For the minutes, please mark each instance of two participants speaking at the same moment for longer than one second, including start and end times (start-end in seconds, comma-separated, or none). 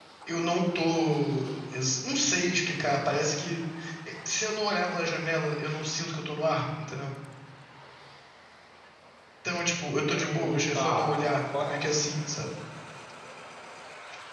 10.1-11.8